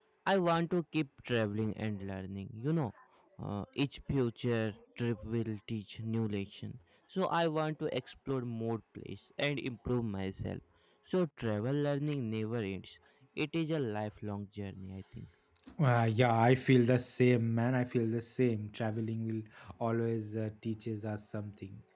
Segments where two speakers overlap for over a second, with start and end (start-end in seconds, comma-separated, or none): none